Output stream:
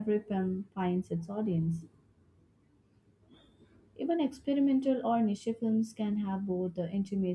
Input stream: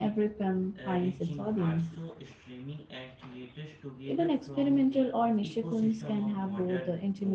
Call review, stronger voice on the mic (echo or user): echo